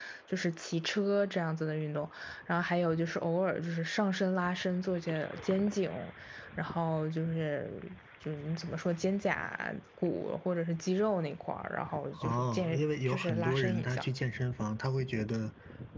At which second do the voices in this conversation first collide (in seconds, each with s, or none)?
12.2 s